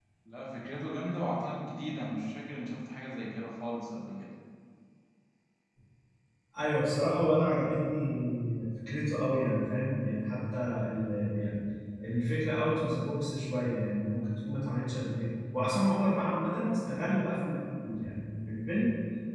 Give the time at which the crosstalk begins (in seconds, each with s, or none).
none